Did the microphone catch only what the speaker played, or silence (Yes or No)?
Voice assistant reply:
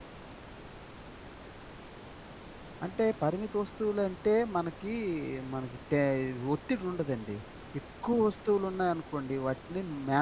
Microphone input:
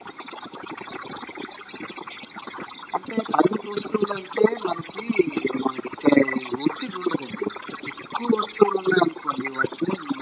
Yes